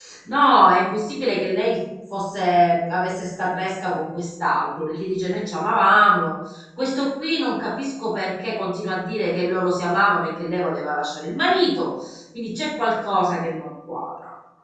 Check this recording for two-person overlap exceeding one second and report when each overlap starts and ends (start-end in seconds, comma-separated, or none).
none